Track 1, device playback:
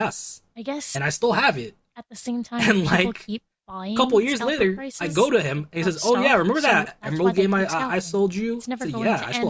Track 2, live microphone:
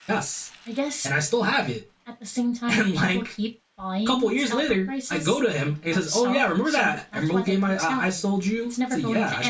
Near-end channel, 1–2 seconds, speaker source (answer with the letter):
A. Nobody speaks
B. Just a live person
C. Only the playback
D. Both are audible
C